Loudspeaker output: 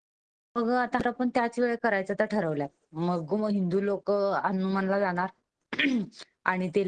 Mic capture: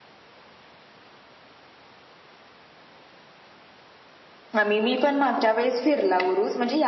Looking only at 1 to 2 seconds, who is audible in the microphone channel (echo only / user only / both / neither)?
neither